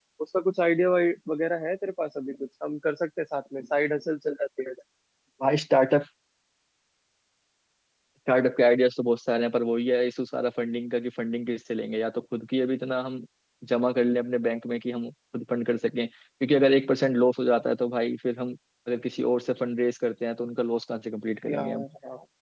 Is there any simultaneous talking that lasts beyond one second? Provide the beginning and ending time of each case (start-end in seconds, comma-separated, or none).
none